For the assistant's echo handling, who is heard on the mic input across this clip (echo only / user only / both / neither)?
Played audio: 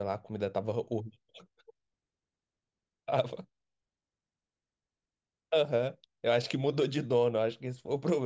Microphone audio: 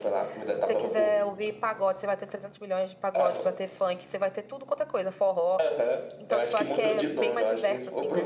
both